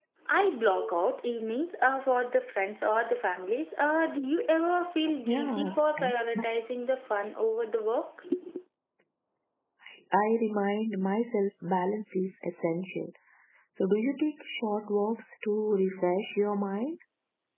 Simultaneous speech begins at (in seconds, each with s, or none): 5.2 s